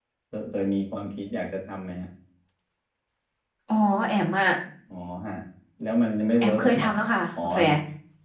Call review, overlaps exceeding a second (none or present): none